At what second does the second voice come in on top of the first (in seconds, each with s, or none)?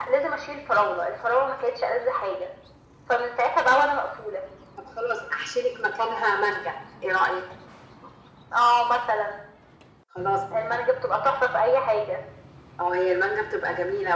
none